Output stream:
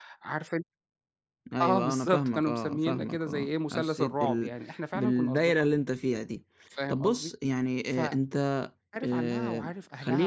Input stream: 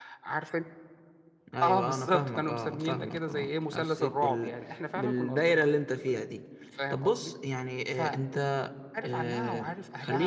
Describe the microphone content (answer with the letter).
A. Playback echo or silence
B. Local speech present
A